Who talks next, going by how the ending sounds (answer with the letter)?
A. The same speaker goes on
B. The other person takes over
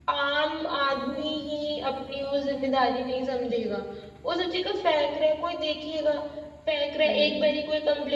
A